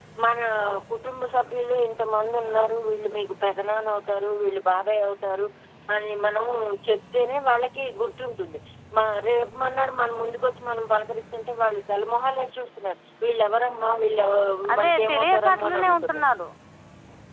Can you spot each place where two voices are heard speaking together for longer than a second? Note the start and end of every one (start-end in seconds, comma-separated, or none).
14.8-16.2